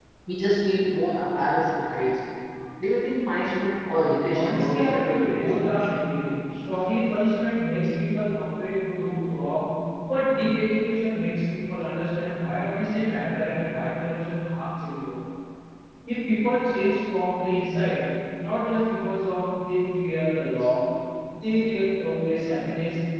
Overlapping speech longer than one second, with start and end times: 4.4-6.0

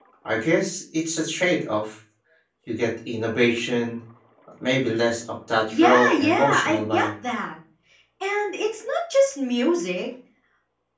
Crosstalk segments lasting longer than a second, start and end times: 5.7-7.1

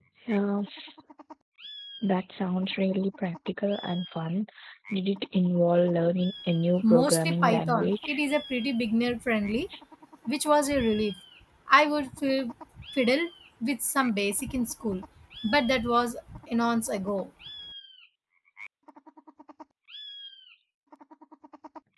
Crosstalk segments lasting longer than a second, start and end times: 6.9-8.2

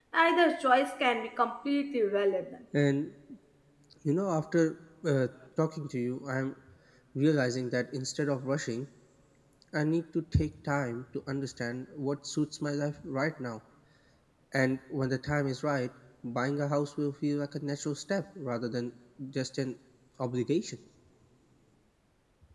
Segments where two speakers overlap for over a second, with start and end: none

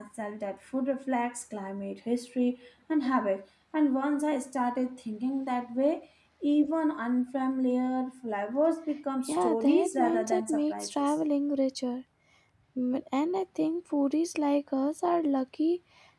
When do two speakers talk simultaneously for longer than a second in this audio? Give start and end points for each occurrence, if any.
9.3-11.2

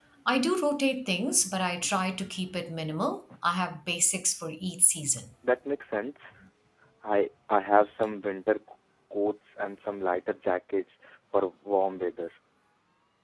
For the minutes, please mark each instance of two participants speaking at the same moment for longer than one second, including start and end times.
none

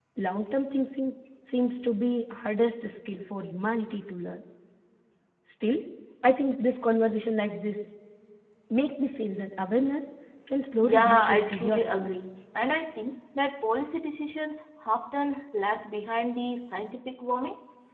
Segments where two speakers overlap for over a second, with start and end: 10.8-12.2

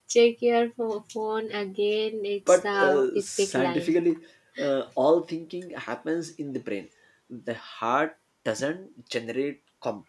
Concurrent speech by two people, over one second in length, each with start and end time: 2.5-3.9

